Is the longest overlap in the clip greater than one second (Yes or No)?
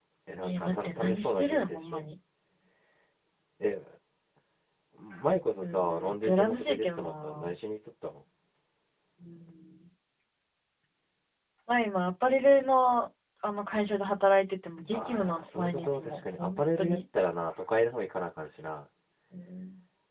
Yes